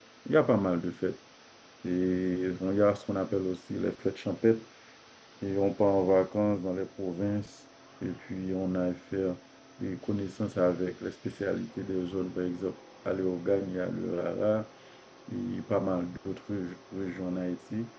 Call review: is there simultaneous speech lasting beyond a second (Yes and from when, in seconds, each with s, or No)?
No